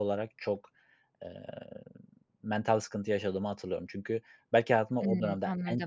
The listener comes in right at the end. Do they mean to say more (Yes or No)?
No